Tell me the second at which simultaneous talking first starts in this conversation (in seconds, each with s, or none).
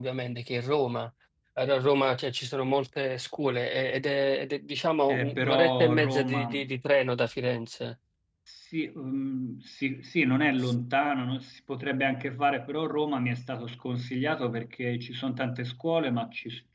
5.1 s